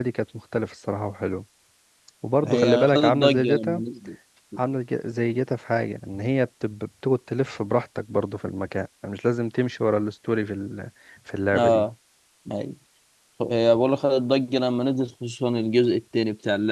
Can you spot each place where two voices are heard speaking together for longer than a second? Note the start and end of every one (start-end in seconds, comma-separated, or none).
2.4-3.8